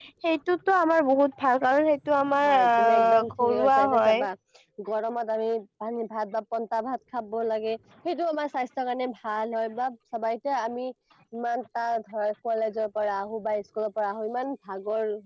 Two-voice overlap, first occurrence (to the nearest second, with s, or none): 2 s